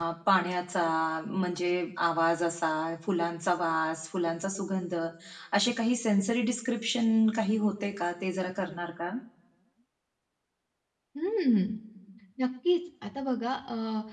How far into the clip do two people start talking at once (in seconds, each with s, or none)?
none